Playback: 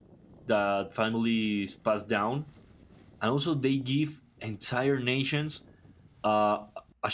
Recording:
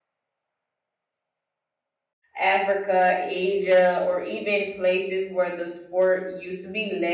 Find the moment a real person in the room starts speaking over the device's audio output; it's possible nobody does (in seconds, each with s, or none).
2.4 s